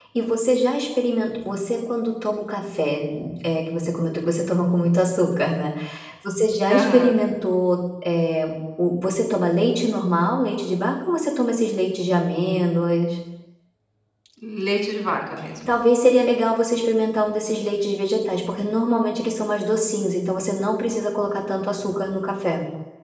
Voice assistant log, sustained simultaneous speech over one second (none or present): none